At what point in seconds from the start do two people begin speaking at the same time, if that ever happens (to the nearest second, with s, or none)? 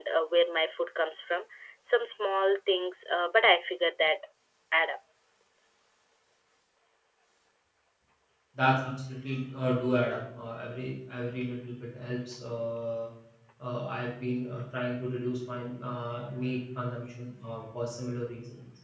none